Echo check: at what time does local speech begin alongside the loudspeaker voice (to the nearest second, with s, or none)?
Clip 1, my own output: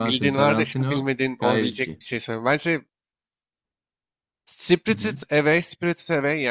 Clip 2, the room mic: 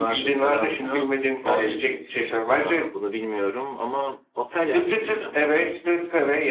3 s